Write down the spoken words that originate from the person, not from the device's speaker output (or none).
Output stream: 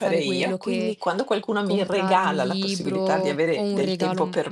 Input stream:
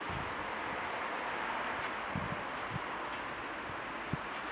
none